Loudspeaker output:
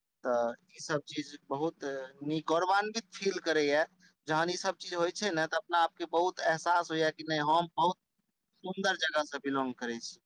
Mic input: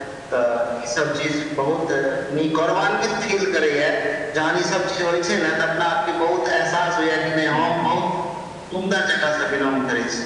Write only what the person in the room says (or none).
हूं हूं